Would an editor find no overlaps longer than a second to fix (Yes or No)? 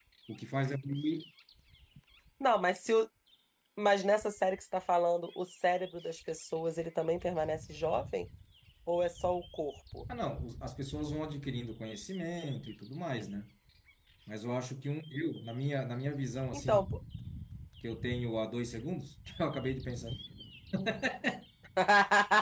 Yes